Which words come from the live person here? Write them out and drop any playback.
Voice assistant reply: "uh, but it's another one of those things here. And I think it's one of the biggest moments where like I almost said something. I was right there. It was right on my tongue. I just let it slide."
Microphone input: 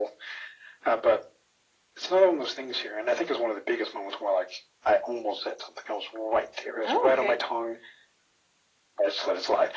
Oh, okay.

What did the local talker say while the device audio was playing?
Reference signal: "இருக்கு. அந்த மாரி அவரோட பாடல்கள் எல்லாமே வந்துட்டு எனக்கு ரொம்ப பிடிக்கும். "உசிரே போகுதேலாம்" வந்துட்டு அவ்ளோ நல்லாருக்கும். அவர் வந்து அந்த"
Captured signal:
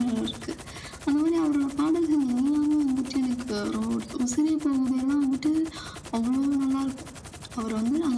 none

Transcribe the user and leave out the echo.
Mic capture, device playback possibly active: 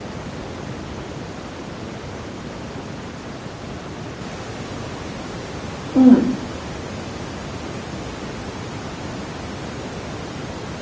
嗯，

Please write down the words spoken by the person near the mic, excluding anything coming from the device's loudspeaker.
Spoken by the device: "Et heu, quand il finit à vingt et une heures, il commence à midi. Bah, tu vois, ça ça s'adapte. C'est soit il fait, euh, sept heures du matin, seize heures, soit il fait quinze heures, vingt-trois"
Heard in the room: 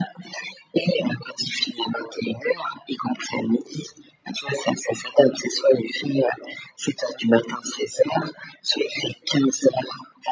none

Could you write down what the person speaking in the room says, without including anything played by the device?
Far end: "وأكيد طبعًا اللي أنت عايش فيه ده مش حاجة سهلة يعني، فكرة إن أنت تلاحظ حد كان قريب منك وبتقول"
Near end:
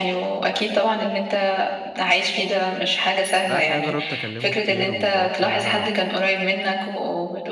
لأ الحقيقة جرّبت أكلّمه كتير، وجرّبت إن أنا

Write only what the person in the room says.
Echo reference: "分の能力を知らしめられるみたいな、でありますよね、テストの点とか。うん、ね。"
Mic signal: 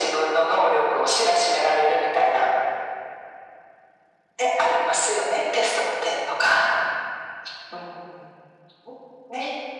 none

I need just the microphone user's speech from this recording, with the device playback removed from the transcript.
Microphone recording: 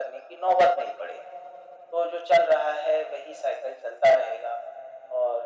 none

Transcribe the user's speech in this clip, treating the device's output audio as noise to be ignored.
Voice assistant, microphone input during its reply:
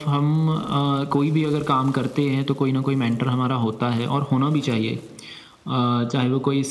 none

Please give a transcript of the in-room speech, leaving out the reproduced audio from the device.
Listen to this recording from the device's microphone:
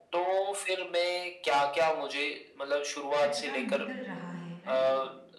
कचरा निकल रहा है, राइट?

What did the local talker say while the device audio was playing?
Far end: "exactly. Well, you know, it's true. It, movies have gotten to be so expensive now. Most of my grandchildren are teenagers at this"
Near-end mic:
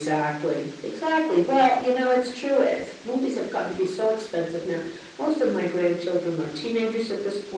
none

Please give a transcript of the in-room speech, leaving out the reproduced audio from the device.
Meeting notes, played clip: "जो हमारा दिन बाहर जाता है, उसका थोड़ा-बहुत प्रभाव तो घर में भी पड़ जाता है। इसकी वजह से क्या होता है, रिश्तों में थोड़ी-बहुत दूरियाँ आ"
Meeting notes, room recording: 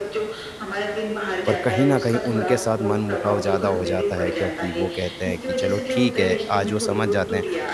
पर कहीं न कहीं उनके साथ मनमुटाव ज़्यादा हो जाता है क्योंकि वो कहते हैं कि चलो ठीक है, आज वो समझ जाते हैं,

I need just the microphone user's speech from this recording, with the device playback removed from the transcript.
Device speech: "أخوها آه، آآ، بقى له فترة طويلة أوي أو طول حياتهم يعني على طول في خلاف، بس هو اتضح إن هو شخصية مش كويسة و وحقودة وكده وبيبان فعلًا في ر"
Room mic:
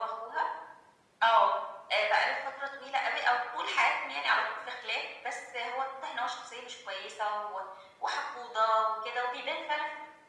none

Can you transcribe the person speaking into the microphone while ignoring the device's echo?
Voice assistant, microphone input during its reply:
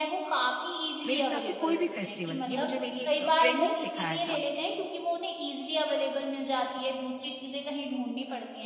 मेरे हिसाब से कोई भी फेस्टिवल, ये मुझे मेरी एक फ्रेंड ने ही सिखाया था।

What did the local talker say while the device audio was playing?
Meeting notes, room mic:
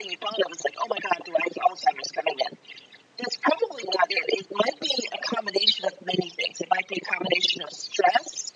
none

